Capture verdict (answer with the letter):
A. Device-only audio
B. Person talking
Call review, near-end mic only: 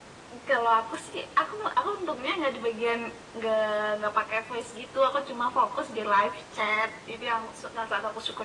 A